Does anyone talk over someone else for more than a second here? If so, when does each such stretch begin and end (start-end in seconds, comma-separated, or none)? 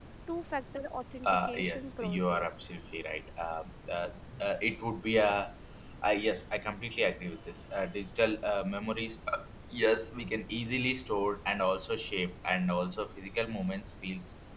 1.2-2.6